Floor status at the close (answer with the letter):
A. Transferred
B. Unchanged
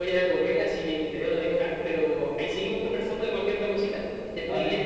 A